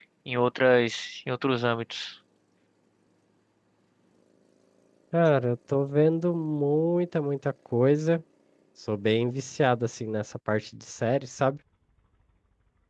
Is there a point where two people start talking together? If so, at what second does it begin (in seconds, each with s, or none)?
none